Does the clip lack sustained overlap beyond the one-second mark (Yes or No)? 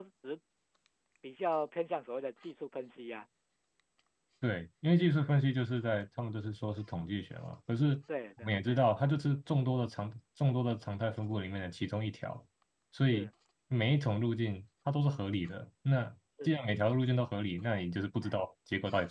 Yes